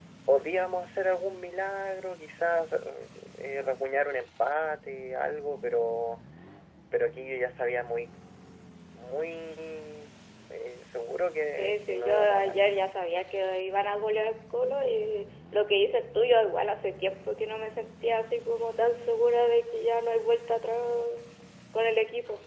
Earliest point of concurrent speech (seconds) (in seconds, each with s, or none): 11.5 s